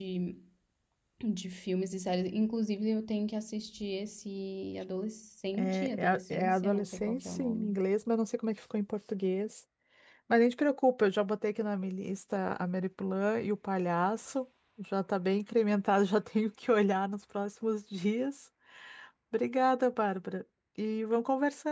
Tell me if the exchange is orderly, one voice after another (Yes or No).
No